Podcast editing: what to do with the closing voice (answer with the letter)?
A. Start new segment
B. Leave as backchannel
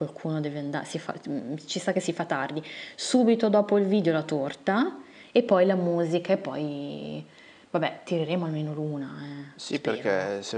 A